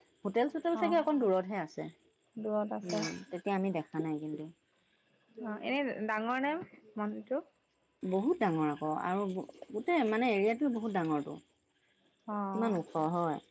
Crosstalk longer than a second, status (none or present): none